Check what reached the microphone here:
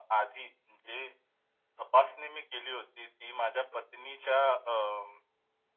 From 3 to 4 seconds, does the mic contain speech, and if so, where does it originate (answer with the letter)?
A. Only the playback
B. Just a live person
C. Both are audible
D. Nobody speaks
A